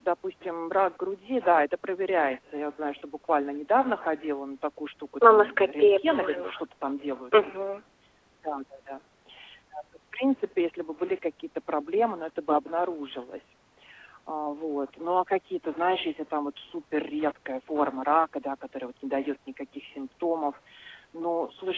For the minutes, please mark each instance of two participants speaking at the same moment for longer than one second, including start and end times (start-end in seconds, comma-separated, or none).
5.3-6.5